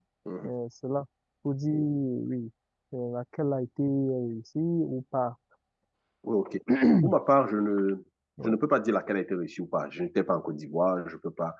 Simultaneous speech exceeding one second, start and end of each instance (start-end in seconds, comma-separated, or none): none